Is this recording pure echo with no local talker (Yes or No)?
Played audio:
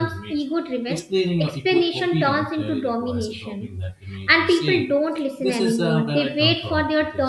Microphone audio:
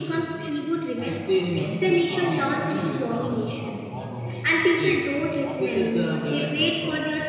No